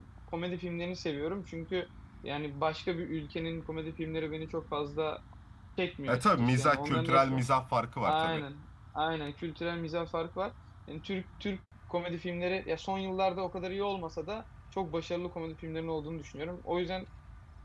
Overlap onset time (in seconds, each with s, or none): 6.1 s